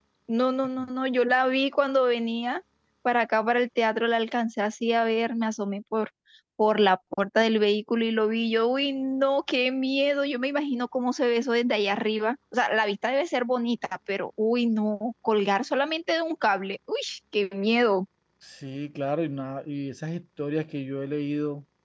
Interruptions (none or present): none